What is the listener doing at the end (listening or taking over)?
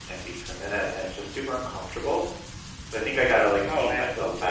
listening